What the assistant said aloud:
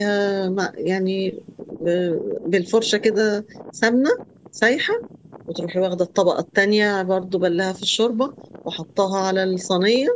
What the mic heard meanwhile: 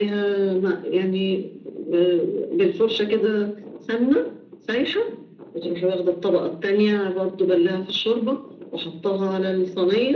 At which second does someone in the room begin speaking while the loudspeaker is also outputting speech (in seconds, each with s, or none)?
none